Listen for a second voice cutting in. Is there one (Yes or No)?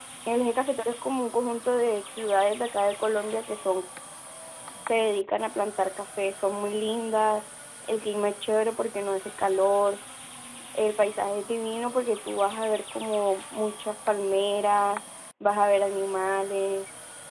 No